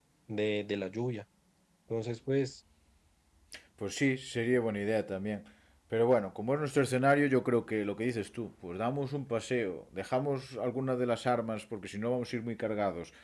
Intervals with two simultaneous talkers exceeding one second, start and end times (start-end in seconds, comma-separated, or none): none